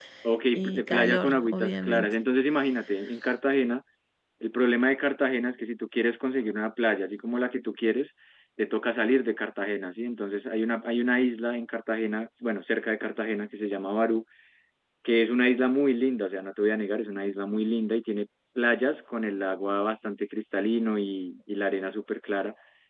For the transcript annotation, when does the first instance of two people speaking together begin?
0.5 s

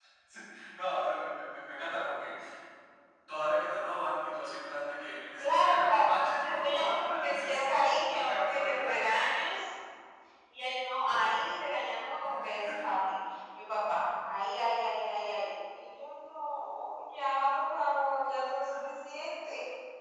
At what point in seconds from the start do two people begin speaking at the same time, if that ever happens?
5.4 s

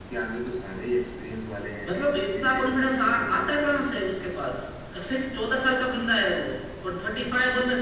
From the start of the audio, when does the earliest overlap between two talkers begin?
2.2 s

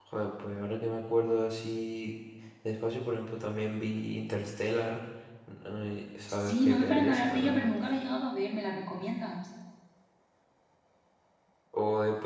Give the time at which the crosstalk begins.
6.3 s

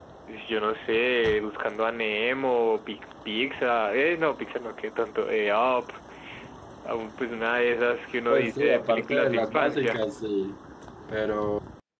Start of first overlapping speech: 8.3 s

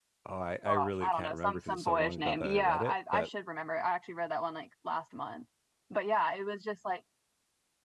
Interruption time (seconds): 0.7 s

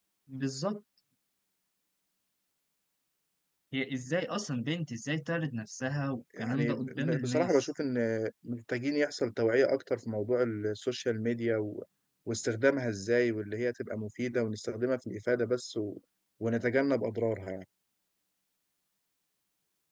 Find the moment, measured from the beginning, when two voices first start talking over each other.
6.3 s

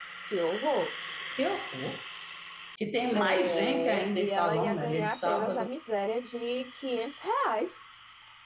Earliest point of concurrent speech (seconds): 3.1 s

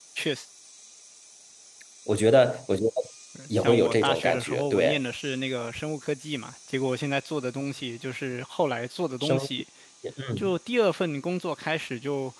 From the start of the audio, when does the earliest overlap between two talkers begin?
3.6 s

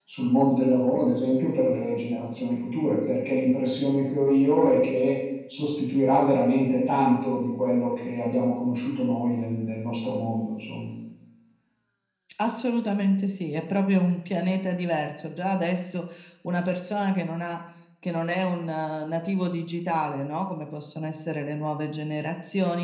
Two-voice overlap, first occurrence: none

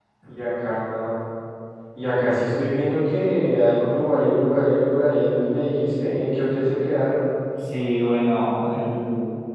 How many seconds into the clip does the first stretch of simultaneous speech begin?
none

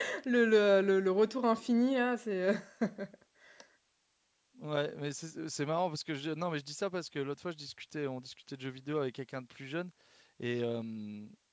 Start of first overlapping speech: none

